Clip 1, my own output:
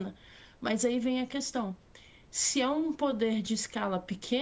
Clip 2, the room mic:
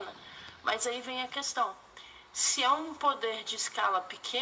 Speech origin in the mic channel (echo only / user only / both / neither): echo only